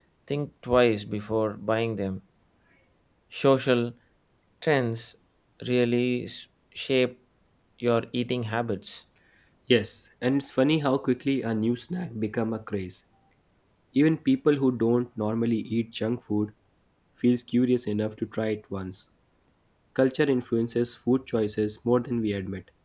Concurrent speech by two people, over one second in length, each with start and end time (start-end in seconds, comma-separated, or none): none